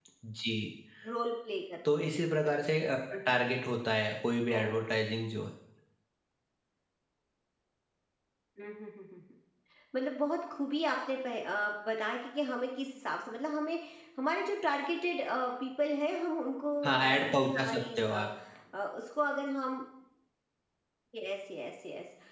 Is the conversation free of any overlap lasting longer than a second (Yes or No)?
No